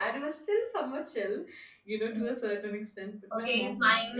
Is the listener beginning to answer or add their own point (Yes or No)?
Yes